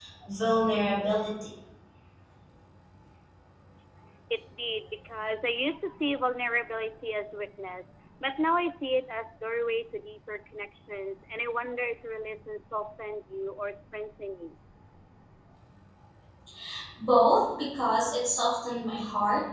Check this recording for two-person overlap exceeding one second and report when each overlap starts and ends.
none

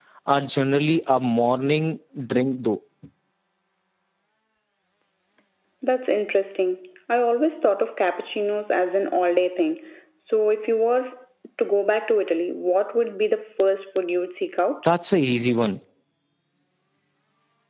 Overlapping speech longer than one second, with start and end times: none

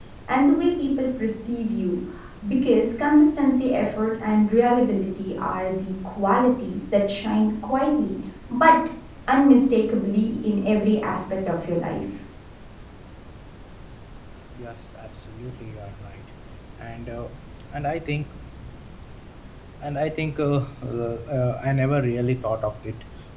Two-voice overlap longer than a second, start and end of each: none

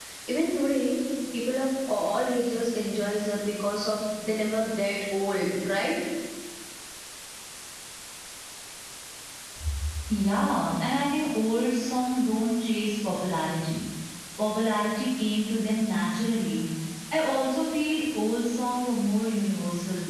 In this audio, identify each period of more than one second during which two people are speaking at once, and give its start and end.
none

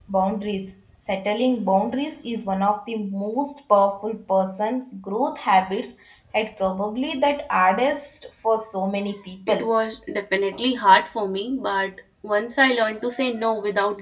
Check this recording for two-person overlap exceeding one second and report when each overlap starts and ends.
none

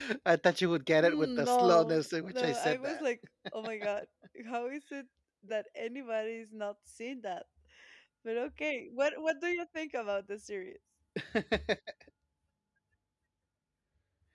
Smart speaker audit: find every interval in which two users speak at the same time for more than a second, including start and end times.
1.0-3.0

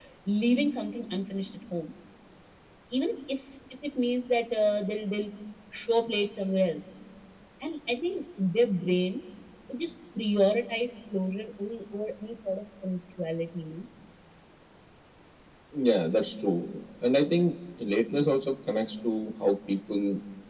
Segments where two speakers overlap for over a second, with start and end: none

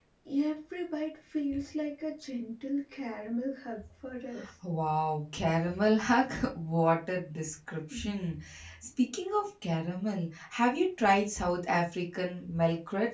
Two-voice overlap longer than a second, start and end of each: none

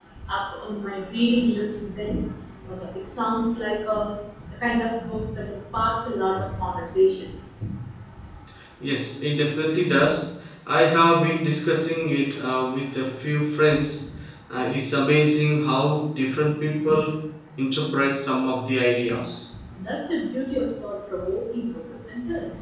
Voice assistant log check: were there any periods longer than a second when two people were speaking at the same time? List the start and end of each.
none

